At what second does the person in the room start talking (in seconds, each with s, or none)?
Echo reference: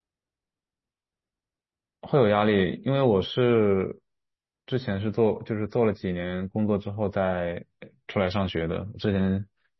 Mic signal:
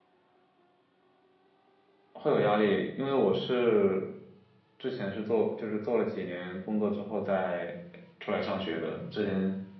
none